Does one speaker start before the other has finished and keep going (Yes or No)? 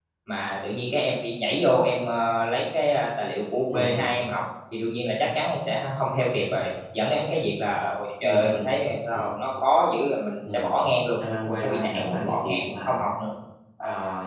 Yes